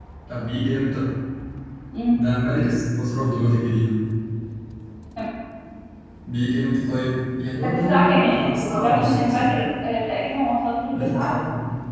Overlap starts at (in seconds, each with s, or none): 7.6 s